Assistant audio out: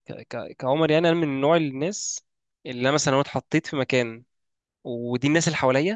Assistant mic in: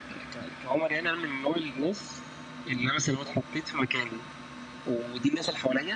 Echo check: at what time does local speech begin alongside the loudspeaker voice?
none

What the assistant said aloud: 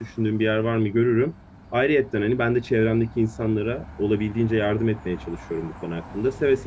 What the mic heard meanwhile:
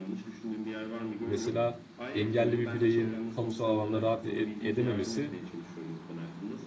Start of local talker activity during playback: 1 s

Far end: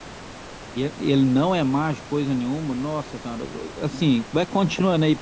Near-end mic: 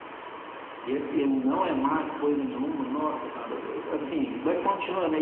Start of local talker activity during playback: none

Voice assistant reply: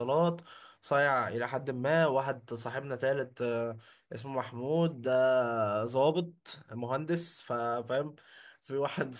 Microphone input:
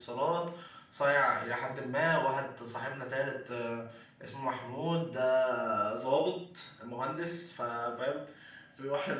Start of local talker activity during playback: none

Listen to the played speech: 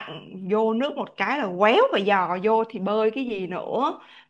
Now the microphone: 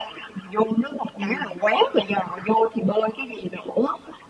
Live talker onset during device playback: 1 s

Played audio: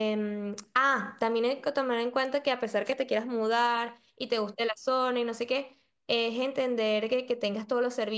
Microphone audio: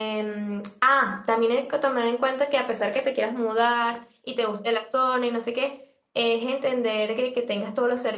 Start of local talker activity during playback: none

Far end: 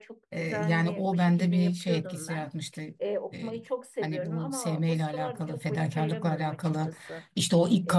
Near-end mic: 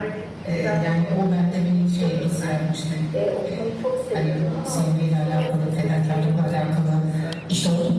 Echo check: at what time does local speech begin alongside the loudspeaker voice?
none

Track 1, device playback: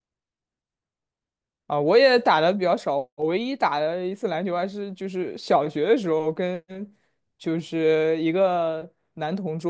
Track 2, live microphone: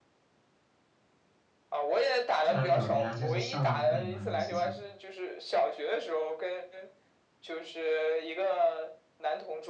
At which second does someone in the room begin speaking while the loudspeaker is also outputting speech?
2 s

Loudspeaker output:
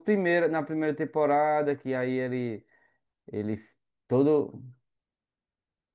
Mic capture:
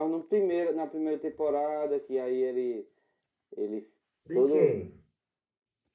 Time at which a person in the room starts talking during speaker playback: 4 s

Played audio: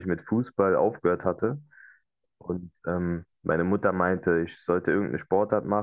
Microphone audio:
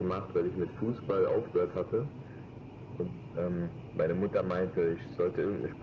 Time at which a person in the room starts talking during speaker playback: none

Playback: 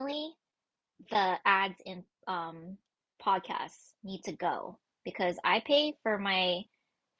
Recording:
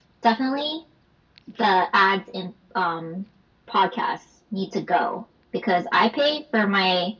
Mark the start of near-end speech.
none

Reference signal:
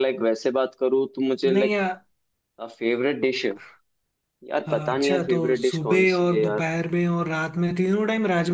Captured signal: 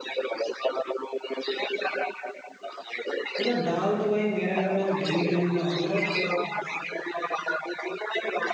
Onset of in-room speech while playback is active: 3 s

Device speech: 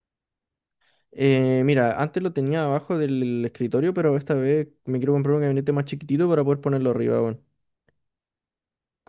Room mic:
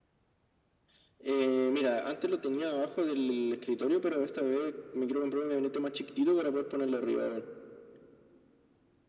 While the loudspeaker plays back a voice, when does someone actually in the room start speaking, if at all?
none

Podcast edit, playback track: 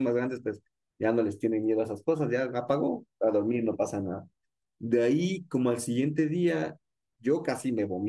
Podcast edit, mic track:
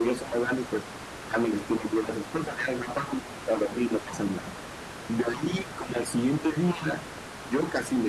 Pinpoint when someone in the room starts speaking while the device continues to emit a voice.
none

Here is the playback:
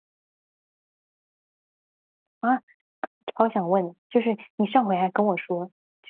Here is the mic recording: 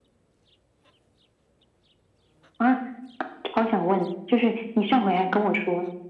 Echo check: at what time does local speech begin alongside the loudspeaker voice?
none

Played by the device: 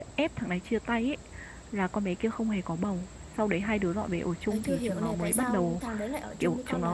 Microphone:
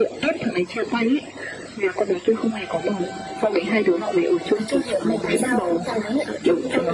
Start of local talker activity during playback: none

